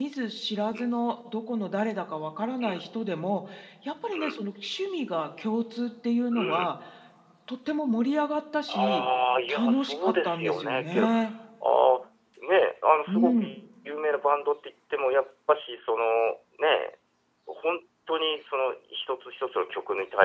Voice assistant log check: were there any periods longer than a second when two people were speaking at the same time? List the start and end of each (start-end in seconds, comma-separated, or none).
9.5-11.1